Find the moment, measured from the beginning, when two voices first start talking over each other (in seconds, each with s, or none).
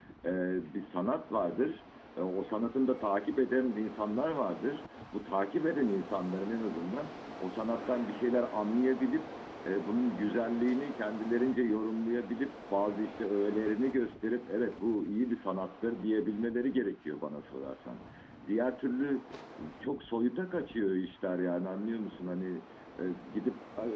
none